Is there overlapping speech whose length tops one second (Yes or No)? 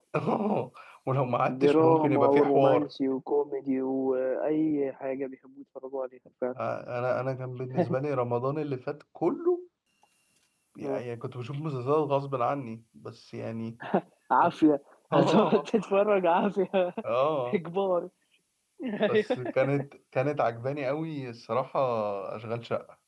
Yes